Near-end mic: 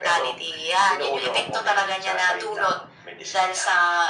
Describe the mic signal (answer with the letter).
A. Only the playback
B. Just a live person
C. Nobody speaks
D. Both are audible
A